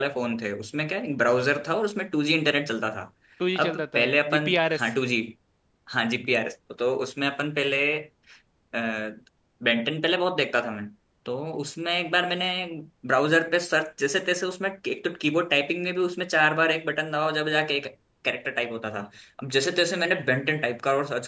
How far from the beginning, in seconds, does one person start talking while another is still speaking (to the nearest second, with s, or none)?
4 s